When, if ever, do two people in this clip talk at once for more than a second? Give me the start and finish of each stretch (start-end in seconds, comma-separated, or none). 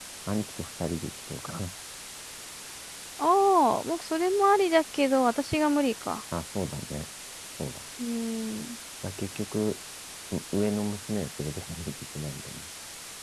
none